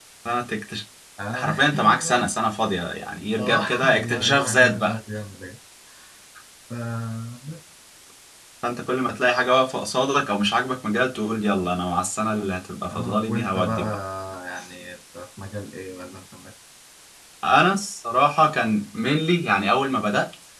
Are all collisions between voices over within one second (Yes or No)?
No